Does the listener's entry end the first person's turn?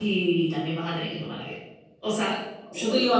No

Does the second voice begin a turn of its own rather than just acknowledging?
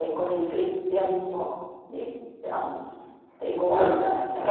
No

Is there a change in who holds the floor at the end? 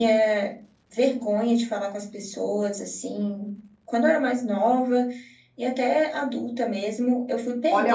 Yes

